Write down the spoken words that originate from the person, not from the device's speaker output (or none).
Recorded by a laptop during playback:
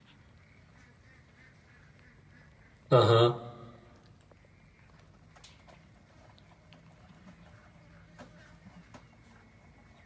嗯哼，